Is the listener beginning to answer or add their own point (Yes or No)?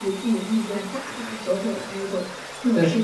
No